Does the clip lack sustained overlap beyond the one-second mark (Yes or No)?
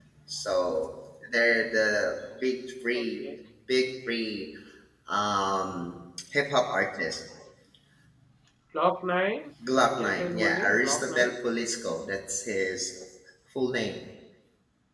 No